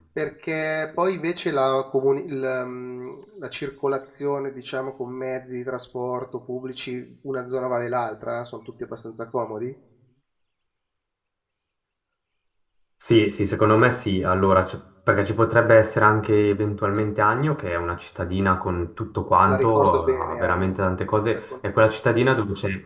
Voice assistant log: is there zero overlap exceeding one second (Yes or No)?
No